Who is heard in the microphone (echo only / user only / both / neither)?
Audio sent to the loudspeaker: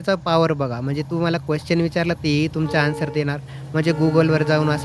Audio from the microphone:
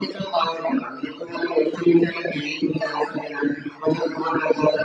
echo only